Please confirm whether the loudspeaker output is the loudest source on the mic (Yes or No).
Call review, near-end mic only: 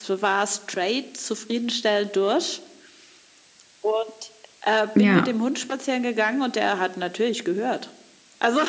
No